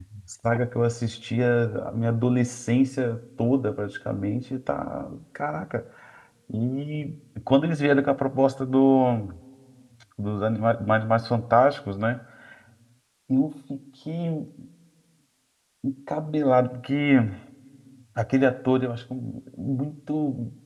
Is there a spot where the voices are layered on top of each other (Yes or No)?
No